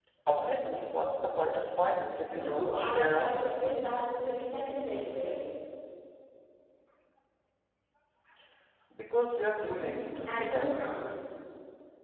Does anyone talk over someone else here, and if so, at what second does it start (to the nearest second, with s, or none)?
2 s